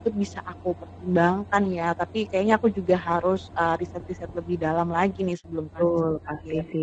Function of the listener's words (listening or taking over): taking over